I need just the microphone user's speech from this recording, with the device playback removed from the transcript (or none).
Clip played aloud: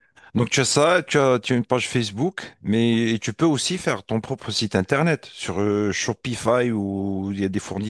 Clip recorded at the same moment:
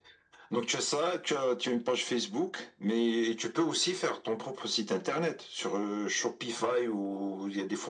none